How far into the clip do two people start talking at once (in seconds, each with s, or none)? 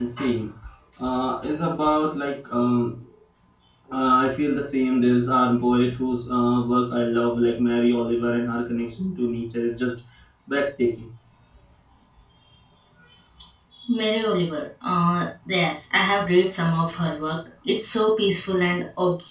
none